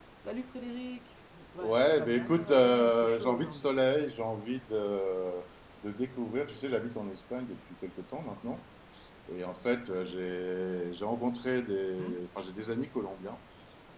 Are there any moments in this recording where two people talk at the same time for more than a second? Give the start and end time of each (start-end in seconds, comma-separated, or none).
1.6-3.7